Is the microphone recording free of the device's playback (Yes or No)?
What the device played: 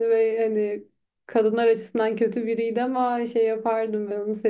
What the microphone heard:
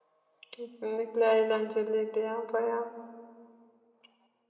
Yes